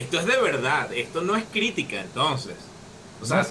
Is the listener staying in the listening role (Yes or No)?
No